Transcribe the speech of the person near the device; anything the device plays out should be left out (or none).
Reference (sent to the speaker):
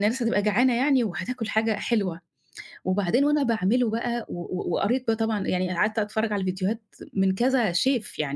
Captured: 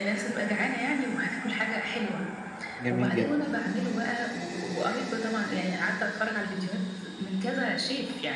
جميل جدًا.